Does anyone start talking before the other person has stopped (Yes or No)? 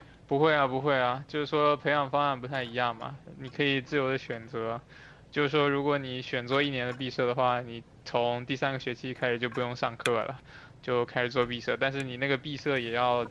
No